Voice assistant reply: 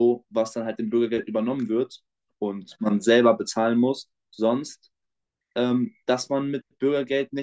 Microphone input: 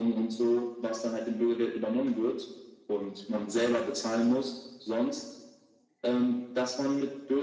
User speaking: No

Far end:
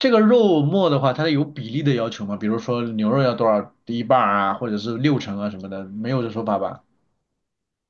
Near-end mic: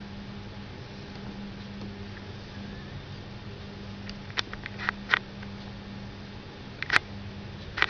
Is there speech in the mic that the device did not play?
No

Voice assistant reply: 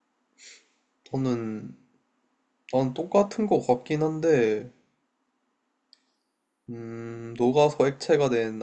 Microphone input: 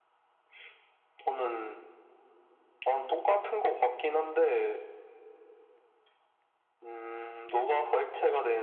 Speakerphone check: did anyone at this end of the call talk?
No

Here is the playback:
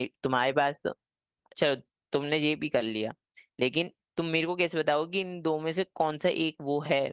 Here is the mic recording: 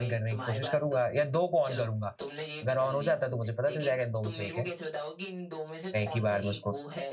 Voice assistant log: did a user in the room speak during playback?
Yes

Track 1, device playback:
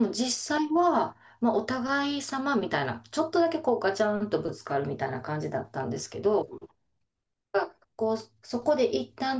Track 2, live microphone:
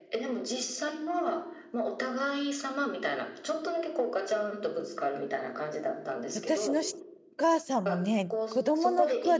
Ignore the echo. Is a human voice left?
Yes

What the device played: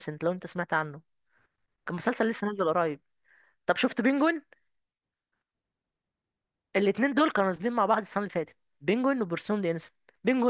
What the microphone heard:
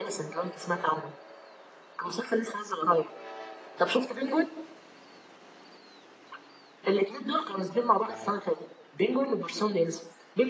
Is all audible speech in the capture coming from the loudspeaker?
No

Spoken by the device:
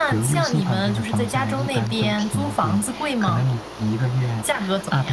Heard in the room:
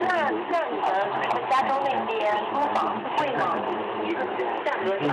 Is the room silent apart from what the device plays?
No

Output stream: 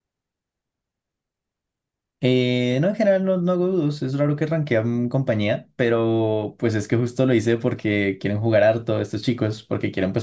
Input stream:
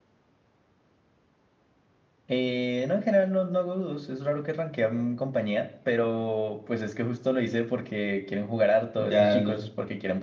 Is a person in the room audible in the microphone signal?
Yes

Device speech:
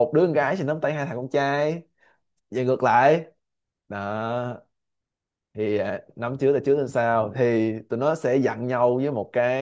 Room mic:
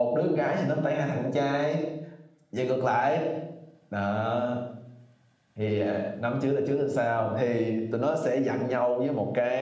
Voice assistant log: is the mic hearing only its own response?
Yes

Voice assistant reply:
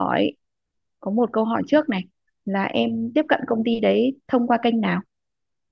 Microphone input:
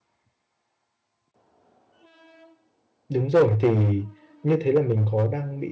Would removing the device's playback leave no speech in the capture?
No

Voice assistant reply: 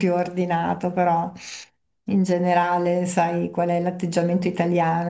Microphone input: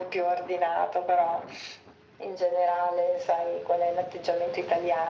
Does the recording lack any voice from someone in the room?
Yes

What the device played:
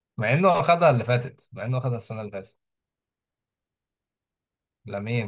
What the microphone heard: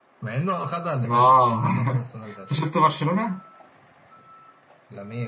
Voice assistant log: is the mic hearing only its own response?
No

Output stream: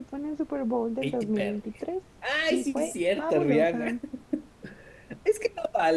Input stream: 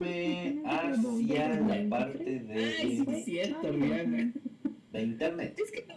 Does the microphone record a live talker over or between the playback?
Yes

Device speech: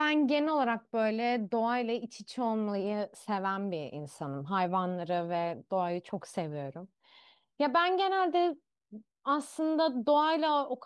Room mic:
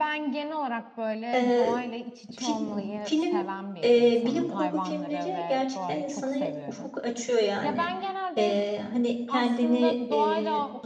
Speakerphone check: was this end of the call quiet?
No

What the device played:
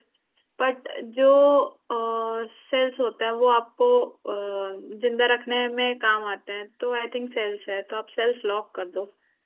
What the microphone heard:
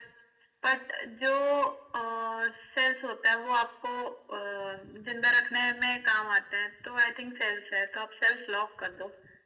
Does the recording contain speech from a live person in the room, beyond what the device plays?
No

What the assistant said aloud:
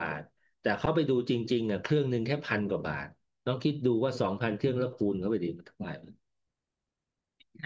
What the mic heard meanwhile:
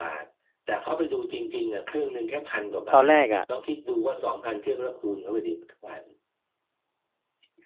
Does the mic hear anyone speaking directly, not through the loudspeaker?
Yes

